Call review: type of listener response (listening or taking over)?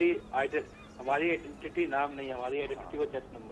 taking over